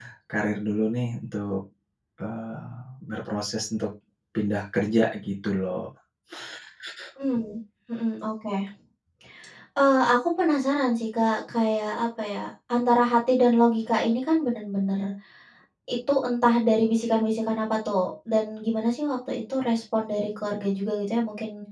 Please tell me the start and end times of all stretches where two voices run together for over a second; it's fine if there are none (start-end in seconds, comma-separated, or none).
none